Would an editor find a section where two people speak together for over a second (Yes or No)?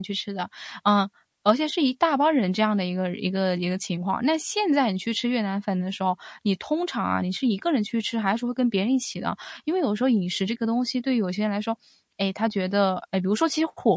No